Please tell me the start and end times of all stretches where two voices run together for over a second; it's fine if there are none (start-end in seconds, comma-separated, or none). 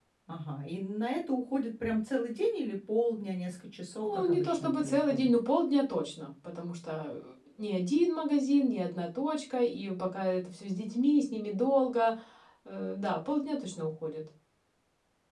4.0-5.3